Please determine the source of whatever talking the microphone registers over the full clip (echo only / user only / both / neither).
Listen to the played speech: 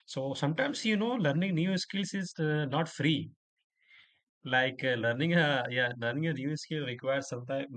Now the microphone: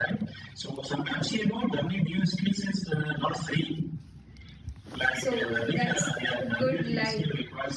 both